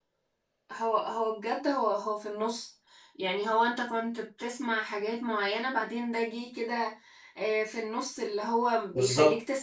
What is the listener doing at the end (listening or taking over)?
listening